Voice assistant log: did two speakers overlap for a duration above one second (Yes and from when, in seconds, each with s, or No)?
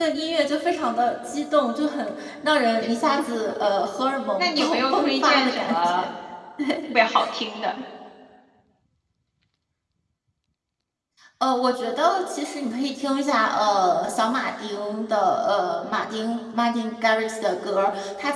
Yes, from 4.4 s